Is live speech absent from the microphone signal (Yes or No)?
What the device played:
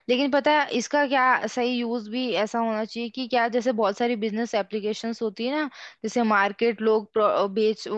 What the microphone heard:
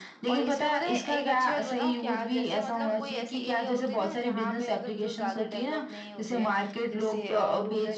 No